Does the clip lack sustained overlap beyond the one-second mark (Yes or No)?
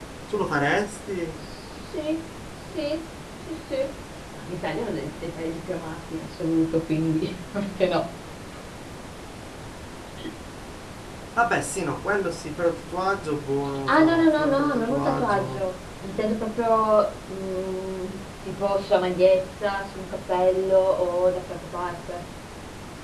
No